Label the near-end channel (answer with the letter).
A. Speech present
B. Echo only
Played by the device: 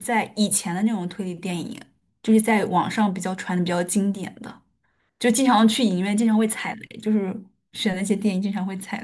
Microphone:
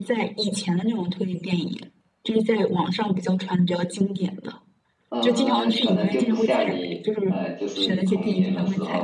A